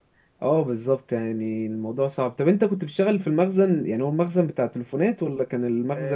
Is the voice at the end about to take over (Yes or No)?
Yes